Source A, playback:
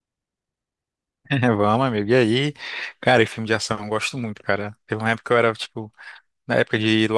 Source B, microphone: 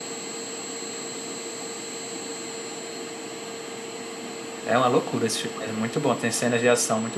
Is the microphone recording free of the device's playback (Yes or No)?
Yes